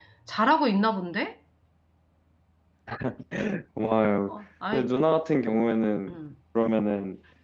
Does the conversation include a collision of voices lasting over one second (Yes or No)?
No